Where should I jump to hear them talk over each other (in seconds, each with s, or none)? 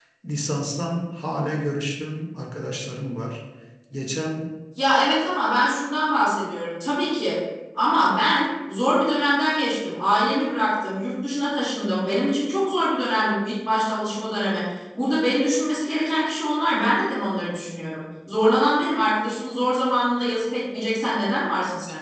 none